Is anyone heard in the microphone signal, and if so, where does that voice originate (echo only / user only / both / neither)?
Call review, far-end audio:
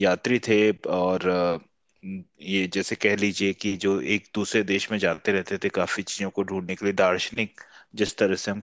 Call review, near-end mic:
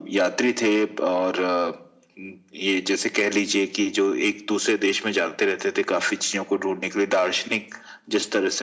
echo only